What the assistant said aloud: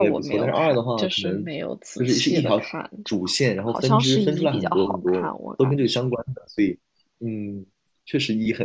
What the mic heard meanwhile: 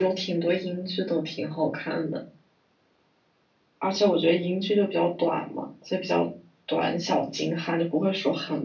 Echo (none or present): none